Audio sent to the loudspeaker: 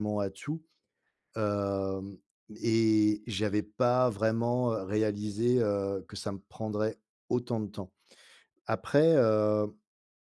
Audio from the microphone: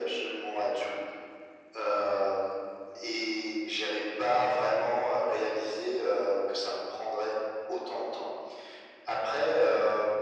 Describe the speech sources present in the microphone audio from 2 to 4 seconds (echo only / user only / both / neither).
echo only